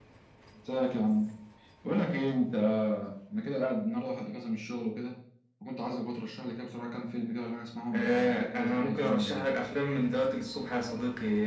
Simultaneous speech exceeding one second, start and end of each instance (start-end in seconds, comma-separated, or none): 7.9-9.5